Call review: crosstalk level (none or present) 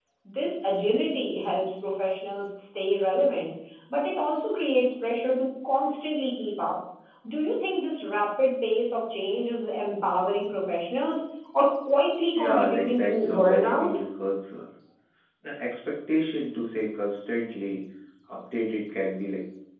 present